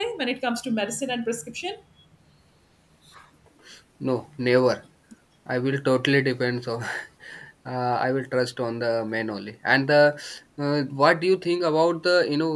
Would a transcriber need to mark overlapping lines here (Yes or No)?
No